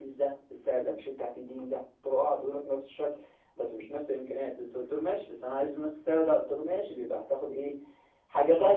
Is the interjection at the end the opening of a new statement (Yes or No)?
Yes